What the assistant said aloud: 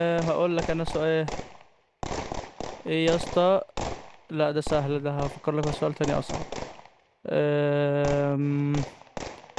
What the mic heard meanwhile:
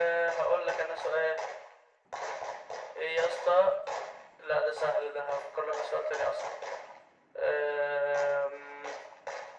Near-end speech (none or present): none